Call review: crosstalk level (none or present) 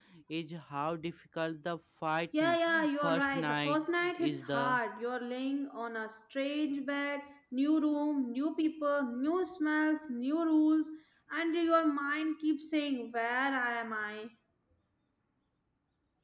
present